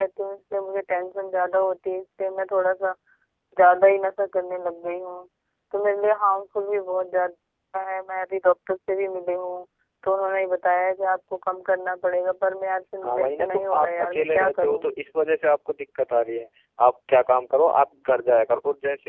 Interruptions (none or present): present